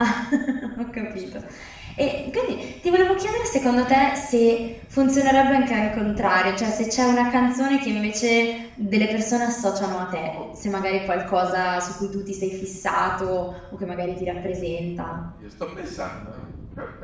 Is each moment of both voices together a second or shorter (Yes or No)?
Yes